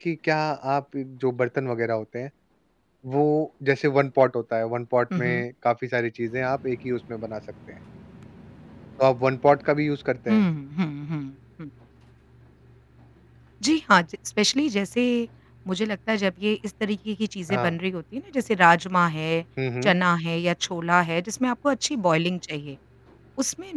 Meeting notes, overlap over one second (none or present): none